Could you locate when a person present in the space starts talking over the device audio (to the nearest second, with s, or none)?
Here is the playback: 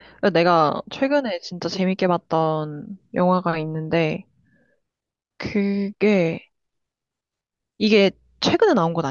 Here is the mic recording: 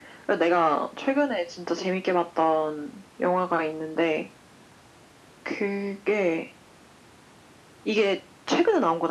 none